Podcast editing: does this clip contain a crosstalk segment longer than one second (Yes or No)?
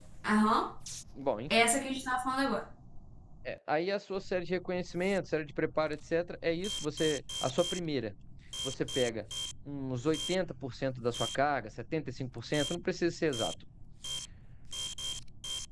No